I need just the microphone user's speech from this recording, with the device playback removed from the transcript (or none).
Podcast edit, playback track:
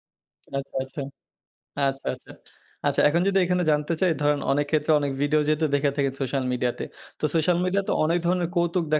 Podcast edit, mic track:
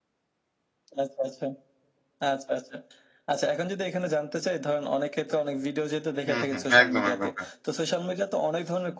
হুম, হুম, একদম, একদম, হ্যাঁ।